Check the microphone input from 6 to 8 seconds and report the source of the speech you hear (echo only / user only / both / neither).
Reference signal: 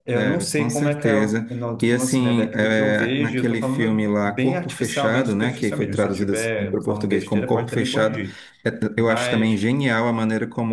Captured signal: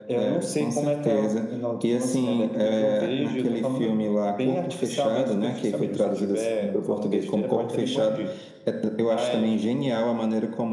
echo only